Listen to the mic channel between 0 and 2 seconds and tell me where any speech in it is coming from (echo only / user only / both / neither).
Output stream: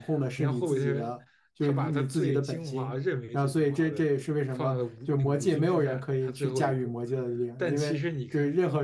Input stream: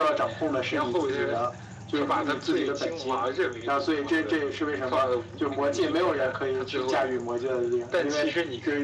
echo only